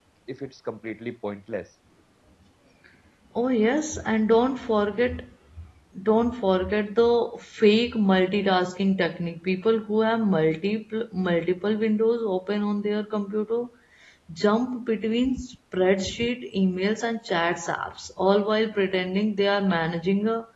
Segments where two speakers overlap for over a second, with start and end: none

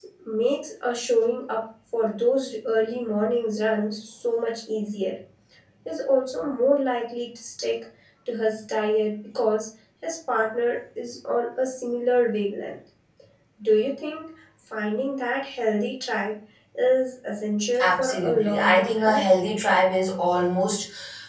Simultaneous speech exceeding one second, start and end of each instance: 17.8-19.2

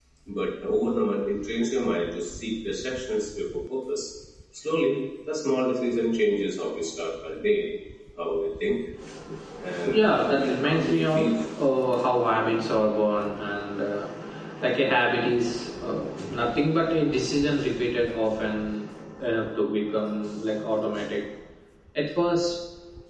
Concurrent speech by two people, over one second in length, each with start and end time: 9.9-11.4

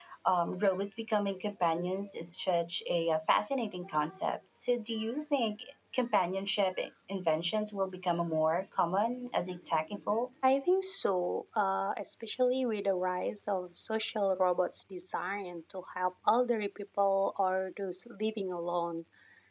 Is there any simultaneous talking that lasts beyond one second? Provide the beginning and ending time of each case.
none

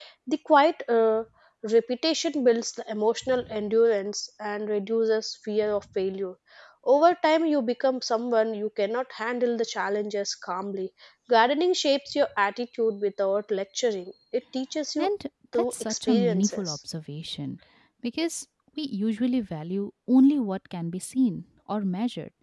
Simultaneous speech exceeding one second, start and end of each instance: 15.5-16.8

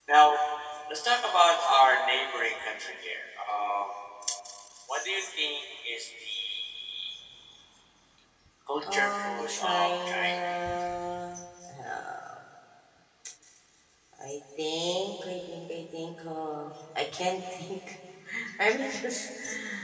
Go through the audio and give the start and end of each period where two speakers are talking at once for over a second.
8.9-10.4

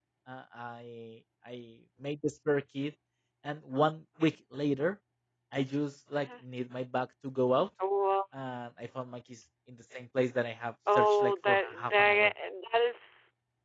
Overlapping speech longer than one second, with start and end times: 10.9-12.3

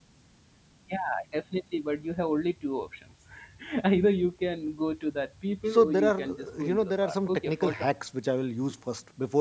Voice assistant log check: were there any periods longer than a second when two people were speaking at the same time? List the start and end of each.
5.7-7.7

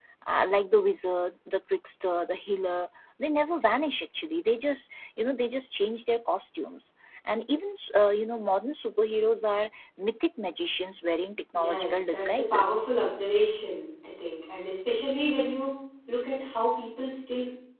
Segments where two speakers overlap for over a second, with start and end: 11.5-12.8

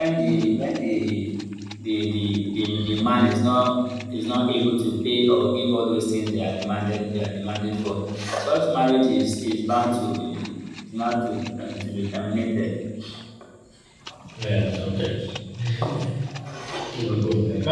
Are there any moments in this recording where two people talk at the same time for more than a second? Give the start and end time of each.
none

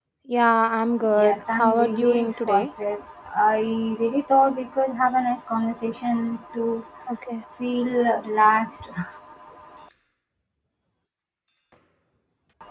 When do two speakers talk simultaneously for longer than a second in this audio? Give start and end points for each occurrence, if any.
1.2-2.7

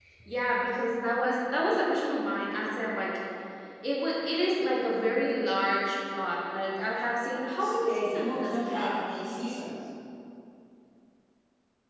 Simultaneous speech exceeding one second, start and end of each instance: 7.8-9.1

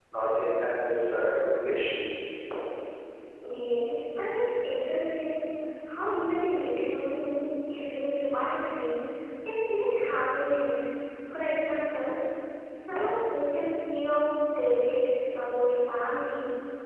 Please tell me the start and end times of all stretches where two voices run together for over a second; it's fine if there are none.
none

